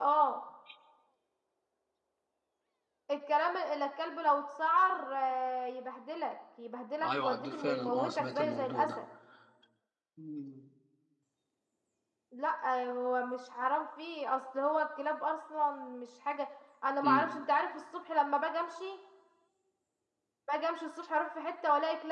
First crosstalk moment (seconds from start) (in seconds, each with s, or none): 7.0 s